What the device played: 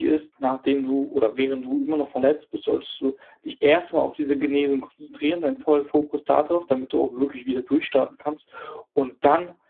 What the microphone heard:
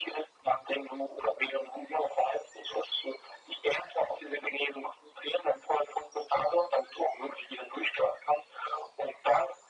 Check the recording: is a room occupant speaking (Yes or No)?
No